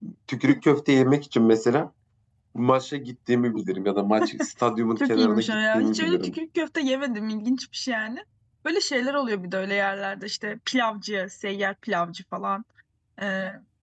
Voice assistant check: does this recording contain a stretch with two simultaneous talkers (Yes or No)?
Yes